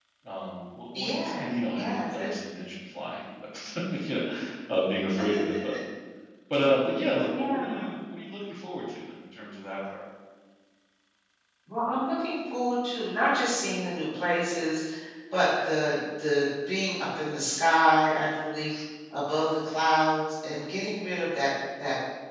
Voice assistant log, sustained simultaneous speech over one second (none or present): present